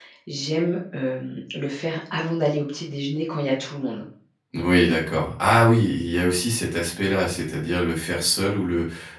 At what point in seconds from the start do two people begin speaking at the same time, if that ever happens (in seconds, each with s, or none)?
none